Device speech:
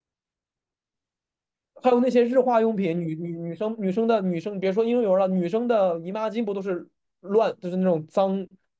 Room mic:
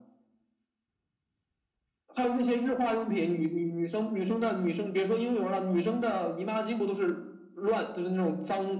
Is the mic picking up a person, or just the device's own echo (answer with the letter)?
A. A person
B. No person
B